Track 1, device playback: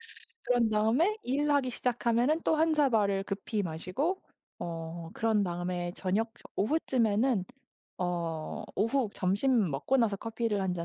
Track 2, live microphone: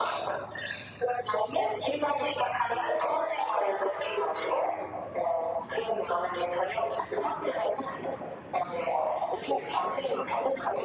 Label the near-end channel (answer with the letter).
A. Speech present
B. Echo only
B